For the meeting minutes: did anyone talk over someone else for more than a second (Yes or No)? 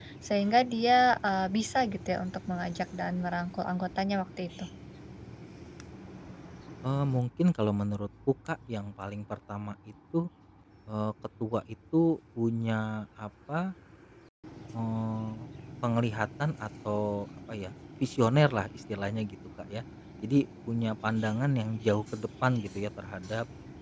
No